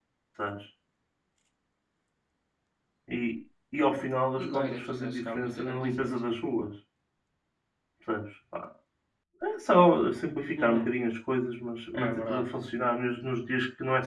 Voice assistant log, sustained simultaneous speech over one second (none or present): present